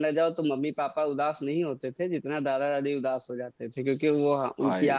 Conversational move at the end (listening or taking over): listening